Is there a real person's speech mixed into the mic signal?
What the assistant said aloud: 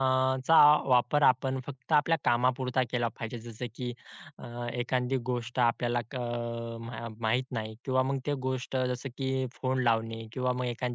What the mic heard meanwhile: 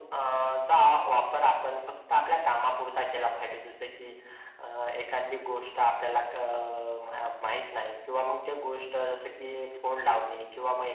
No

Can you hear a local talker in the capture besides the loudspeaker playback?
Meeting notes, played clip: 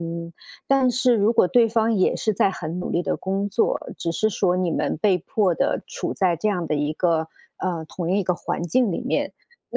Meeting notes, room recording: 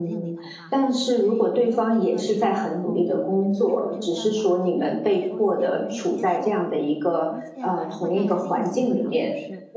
Yes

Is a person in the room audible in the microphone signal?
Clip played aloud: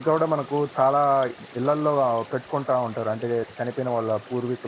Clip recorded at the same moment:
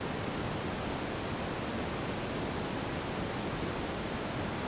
No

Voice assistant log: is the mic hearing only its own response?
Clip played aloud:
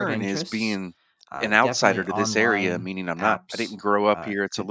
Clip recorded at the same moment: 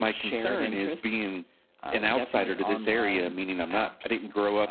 Yes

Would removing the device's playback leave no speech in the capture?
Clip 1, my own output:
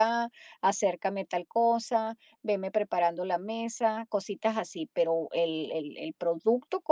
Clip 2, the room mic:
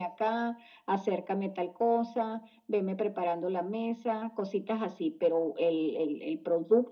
Yes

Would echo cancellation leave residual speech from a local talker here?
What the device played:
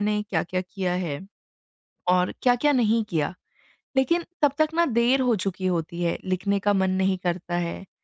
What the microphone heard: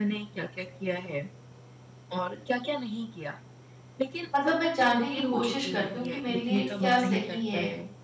Yes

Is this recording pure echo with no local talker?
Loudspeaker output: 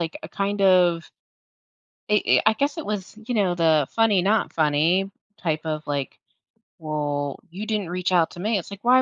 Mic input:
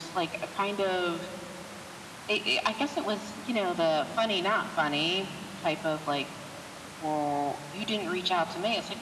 Yes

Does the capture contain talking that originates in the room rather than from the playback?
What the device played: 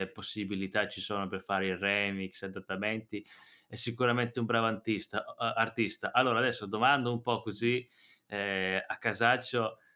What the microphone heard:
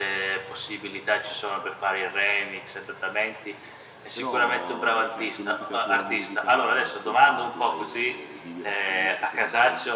Yes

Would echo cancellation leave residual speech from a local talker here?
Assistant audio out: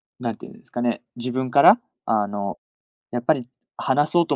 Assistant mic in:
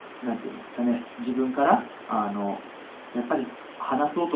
No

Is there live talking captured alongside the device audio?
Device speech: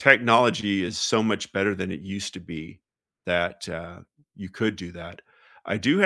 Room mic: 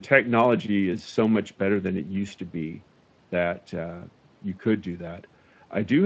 No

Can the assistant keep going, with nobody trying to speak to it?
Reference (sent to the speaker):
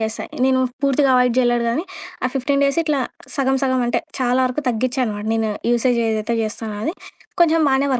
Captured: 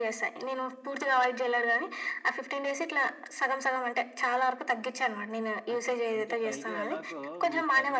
No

